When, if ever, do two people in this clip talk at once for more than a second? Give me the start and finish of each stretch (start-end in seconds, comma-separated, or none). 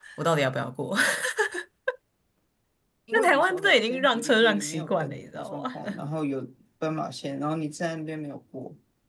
3.1-6.0